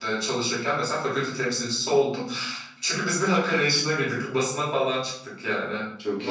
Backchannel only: Yes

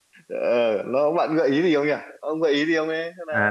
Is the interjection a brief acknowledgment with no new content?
No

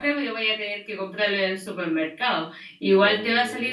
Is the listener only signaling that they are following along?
Yes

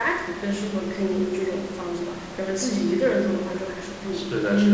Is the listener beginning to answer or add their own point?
Yes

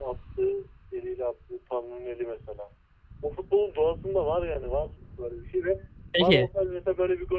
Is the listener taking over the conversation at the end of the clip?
No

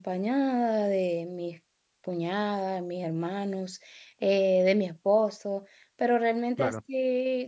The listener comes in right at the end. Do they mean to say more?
No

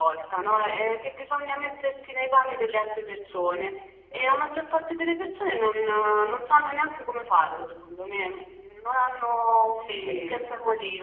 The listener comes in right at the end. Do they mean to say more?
Yes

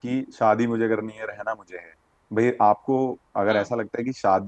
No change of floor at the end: Yes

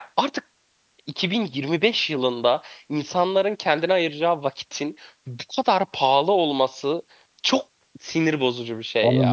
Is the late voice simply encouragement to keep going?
No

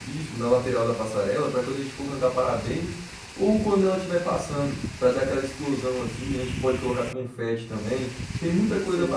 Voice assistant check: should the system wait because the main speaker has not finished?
No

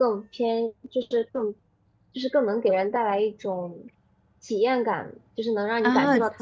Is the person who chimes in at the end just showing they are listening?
No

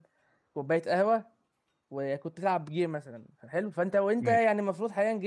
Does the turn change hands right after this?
No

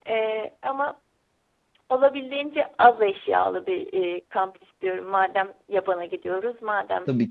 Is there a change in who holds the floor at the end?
No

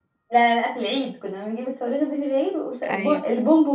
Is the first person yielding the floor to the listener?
No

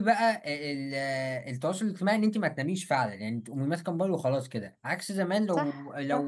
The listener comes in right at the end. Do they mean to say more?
No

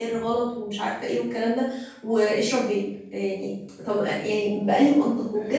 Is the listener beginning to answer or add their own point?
No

